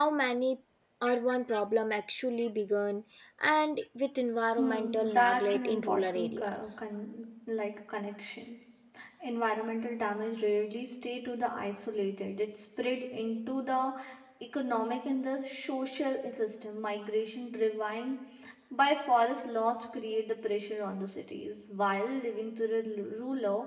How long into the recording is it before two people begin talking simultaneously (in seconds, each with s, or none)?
4.6 s